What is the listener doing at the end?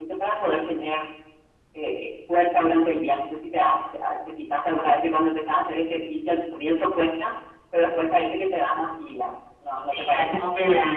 taking over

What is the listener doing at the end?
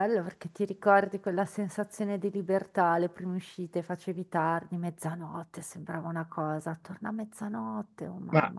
taking over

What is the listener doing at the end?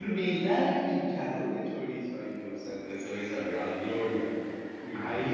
taking over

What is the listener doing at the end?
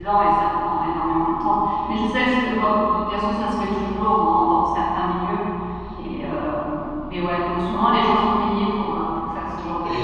taking over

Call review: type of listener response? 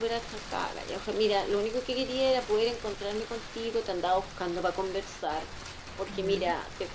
listening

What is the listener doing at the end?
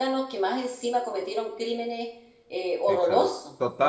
taking over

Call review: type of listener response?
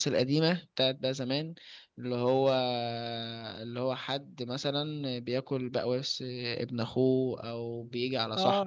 taking over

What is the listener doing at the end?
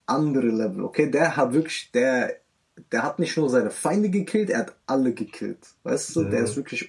listening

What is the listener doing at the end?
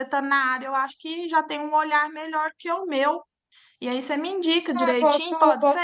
taking over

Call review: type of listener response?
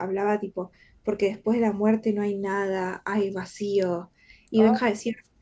listening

